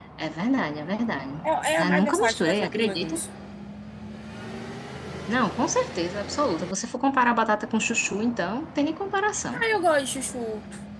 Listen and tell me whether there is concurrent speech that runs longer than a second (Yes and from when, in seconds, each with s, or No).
Yes, from 1.8 s